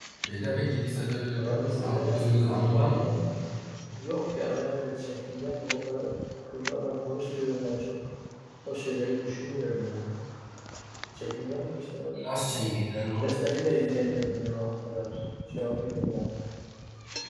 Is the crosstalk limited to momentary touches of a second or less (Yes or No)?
No